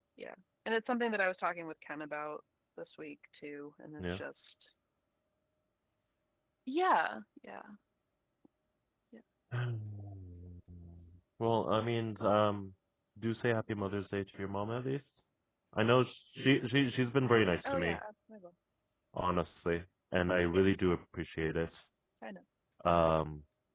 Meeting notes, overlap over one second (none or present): none